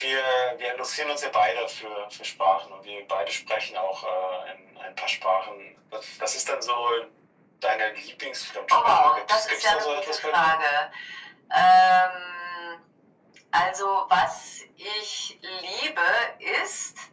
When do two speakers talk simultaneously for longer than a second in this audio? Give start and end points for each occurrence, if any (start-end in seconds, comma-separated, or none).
8.7-10.6